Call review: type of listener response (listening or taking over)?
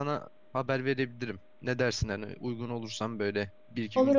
taking over